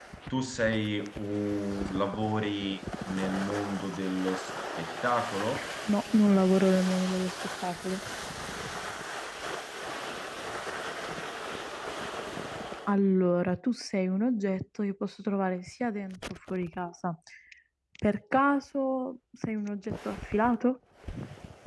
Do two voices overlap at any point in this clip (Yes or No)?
No